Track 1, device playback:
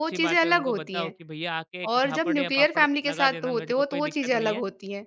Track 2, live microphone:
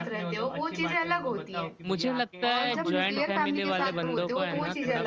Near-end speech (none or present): present